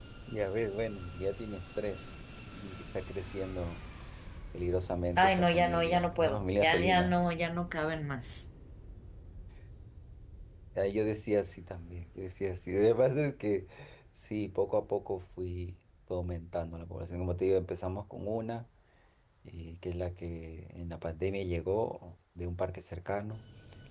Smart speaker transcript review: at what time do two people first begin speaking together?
5.2 s

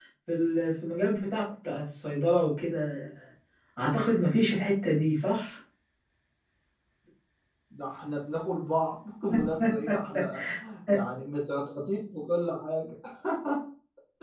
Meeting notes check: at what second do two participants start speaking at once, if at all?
none

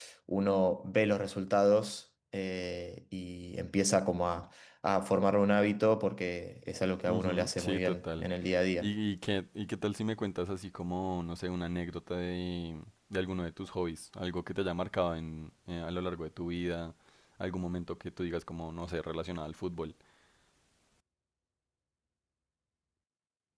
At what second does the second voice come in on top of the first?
7.1 s

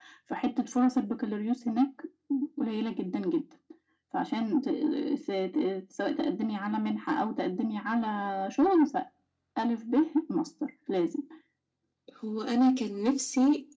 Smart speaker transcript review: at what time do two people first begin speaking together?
none

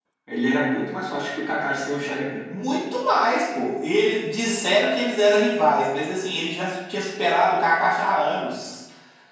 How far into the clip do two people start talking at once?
none

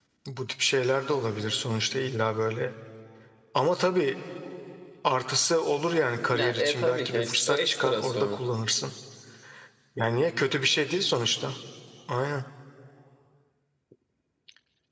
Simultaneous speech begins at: 6.3 s

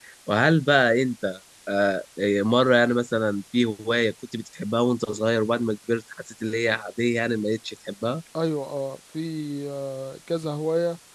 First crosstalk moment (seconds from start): none

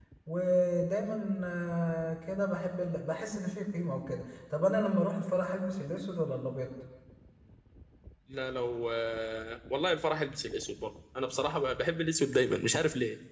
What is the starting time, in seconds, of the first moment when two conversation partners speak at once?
none

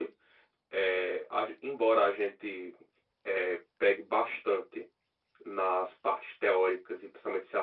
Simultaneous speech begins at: none

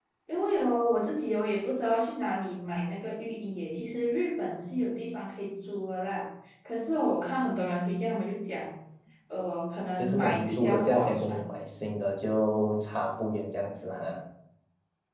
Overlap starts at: 10.0 s

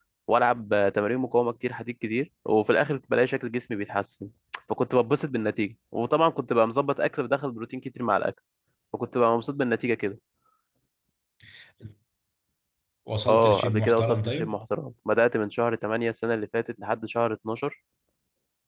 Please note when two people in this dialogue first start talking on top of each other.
13.3 s

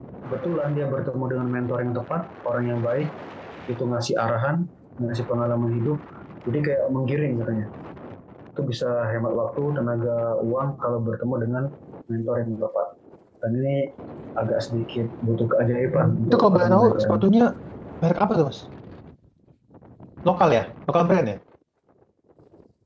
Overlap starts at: 15.9 s

